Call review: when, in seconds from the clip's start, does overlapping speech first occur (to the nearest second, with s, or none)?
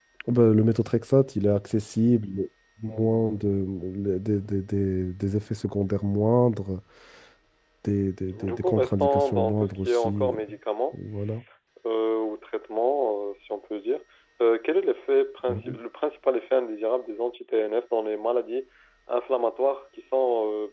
8 s